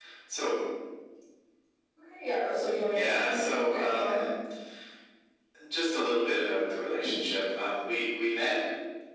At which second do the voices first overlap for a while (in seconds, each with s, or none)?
2.9 s